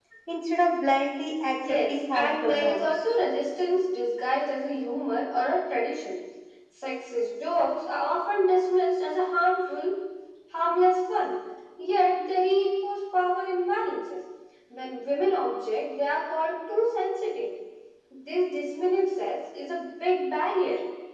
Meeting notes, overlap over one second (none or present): present